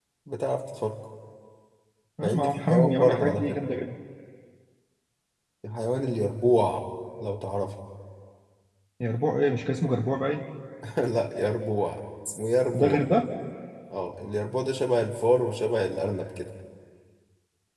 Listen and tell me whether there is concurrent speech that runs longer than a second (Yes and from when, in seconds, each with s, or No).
Yes, from 2.2 s